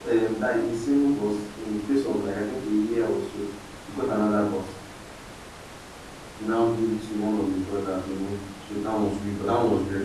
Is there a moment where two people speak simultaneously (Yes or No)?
No